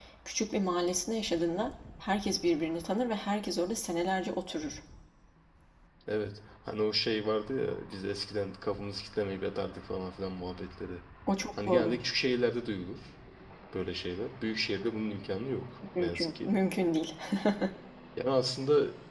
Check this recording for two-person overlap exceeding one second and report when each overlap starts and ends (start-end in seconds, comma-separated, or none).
none